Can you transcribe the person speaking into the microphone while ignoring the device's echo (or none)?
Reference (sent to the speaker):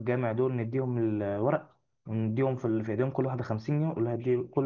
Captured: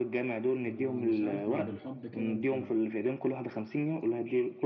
ما- مش عارف ما بالحب كده انت